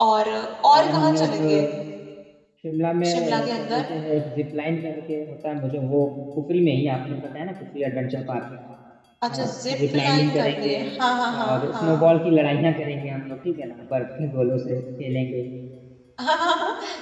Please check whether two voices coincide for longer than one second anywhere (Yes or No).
Yes